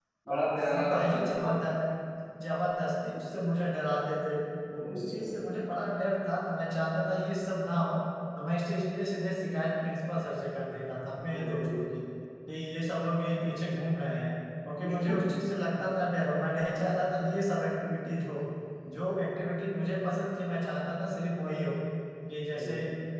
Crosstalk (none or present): present